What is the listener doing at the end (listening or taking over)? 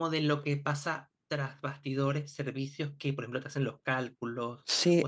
taking over